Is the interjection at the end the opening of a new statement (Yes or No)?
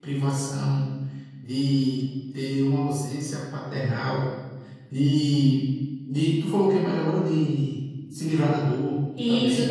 Yes